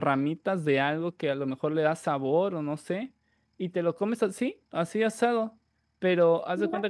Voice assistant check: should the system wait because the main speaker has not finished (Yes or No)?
Yes